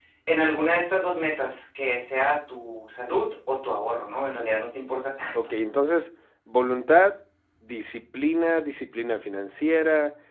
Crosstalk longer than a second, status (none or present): none